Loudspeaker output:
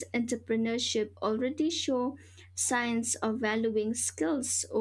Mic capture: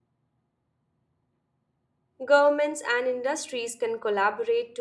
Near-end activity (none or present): present